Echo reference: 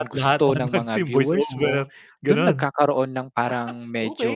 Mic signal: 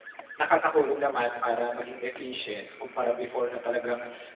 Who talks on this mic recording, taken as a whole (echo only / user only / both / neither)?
user only